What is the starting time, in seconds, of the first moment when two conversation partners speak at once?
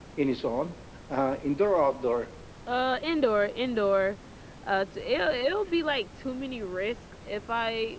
none

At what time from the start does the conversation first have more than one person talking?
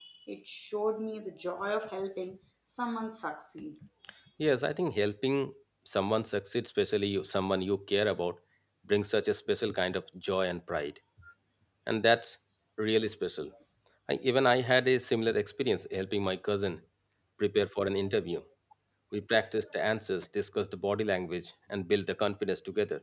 none

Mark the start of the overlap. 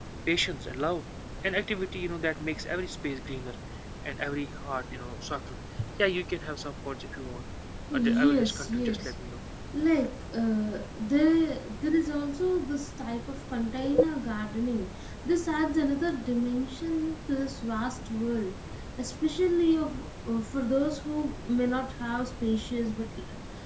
7.9 s

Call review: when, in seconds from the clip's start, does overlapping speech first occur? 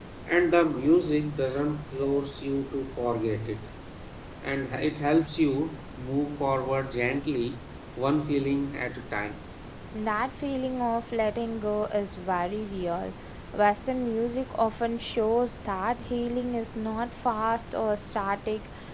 none

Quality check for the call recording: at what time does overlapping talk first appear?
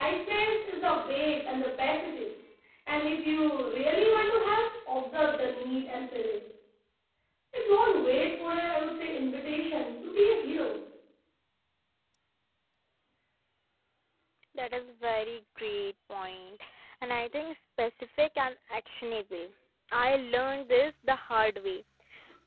none

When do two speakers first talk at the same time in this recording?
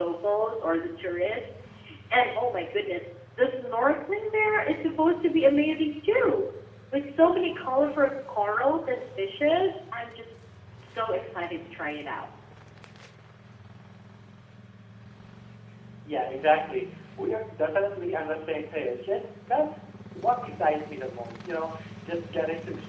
none

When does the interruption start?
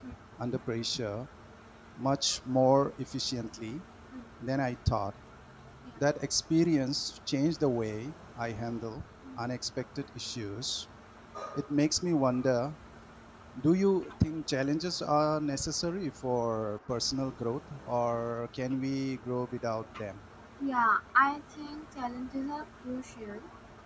none

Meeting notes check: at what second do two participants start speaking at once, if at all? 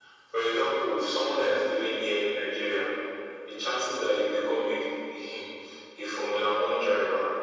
none

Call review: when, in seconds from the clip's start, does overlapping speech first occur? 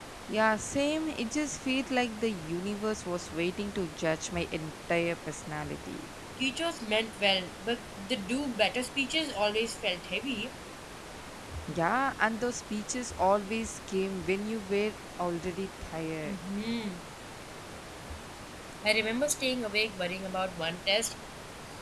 none

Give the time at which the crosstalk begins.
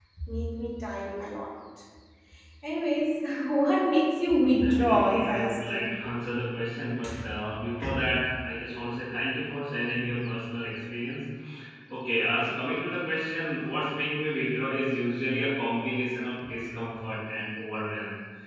4.4 s

